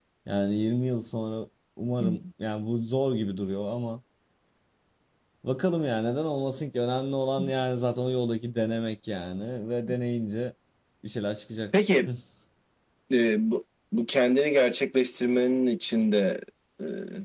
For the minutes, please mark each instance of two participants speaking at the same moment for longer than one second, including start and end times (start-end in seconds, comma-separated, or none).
none